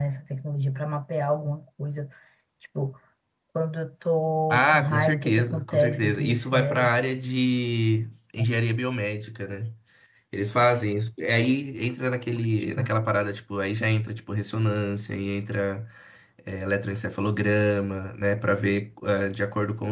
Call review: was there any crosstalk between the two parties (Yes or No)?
Yes